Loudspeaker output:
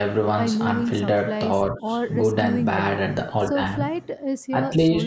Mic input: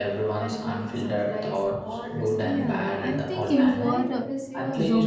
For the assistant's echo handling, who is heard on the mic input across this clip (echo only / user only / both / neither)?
both